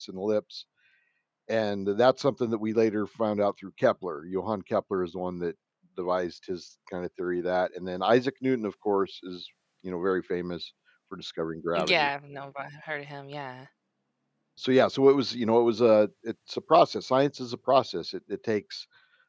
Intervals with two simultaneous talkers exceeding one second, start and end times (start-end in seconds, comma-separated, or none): none